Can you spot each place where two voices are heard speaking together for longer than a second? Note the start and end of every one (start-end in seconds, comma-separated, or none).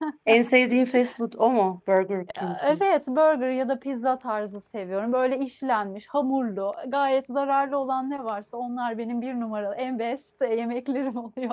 none